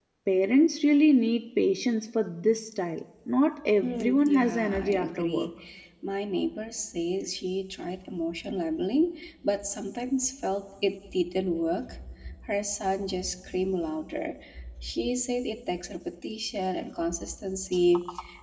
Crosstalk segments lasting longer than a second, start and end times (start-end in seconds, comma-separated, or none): 3.8-5.5